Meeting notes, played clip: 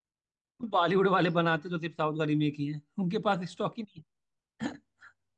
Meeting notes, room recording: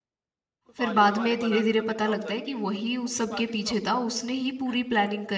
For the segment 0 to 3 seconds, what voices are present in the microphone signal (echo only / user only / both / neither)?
both